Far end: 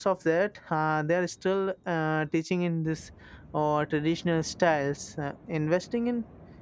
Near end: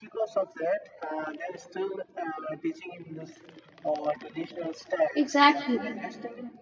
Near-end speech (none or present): present